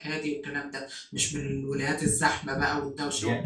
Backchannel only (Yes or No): No